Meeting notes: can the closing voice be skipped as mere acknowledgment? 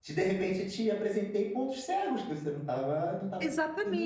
No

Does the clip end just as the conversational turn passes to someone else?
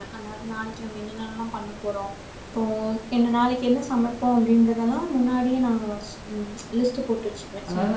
Yes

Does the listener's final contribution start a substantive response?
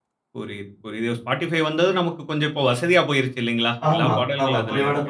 Yes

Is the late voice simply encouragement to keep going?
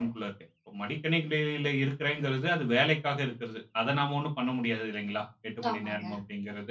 Yes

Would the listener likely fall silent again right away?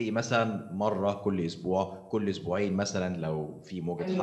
No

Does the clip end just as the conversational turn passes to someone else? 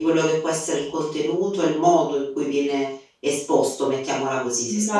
Yes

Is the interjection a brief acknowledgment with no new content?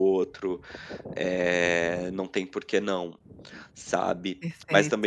Yes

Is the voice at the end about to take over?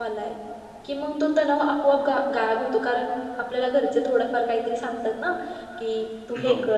No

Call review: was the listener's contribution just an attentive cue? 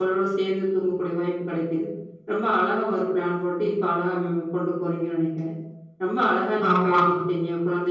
Yes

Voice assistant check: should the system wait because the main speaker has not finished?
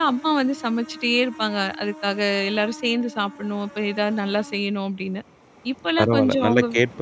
No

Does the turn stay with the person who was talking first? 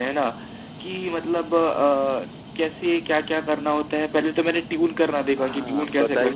No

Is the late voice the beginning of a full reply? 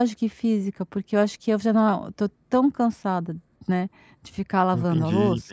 Yes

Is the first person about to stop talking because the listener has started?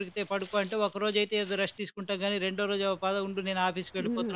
Yes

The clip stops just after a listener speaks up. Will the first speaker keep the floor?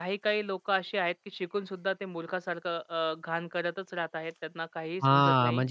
No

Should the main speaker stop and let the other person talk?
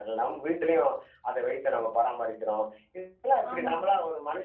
No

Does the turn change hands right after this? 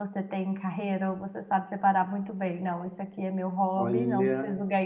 No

